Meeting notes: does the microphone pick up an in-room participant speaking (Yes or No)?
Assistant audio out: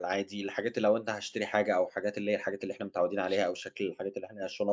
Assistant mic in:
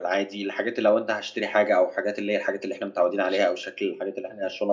No